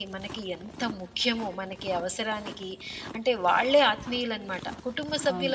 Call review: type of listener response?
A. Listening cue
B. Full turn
A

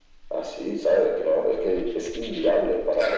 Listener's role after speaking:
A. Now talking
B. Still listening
A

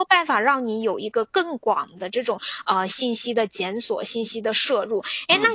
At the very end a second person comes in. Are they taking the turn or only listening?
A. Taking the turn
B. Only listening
B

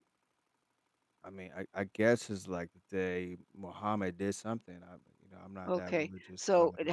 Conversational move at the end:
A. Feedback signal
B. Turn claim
B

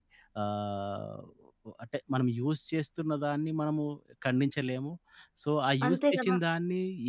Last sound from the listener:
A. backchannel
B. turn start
A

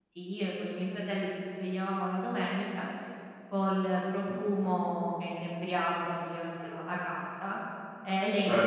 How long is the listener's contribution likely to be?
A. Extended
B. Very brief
B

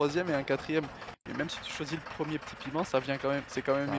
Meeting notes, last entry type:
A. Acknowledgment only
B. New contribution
A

